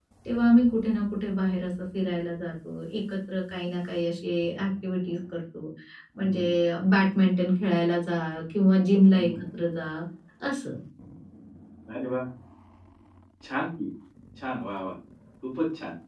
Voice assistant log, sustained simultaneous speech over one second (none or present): none